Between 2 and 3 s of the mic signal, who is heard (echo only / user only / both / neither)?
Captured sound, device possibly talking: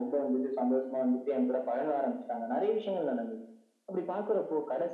echo only